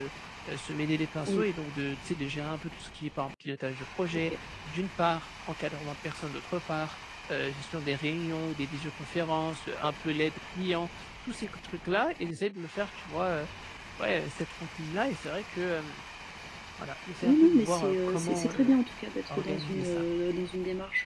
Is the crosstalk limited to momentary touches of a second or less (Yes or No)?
No